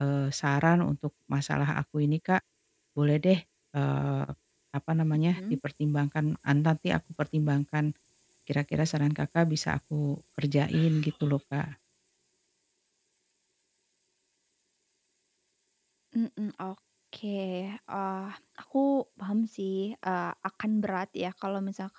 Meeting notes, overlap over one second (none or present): none